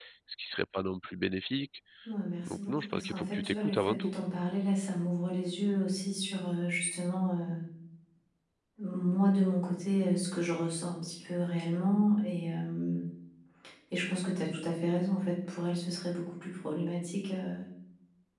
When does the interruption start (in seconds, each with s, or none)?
2.5 s